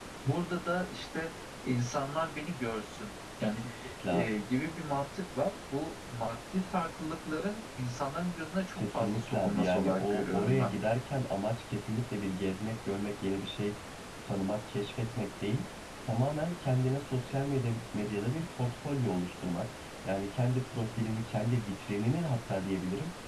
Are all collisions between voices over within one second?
No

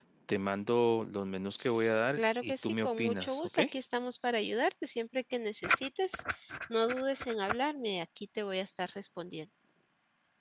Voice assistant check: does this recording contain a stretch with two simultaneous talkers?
Yes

